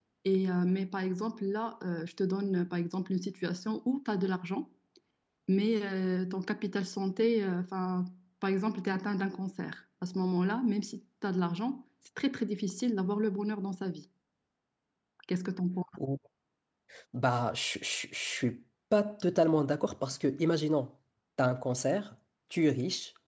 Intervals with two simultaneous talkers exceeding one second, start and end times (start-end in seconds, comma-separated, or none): none